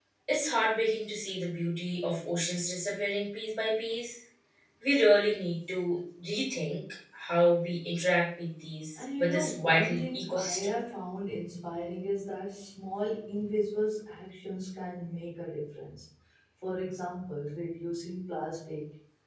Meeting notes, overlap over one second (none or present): present